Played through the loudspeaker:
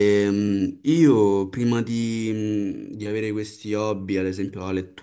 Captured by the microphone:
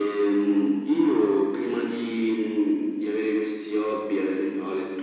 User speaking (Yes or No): No